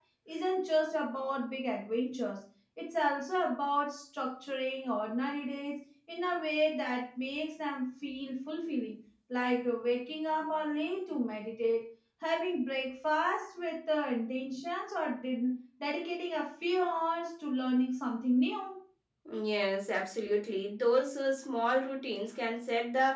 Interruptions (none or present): none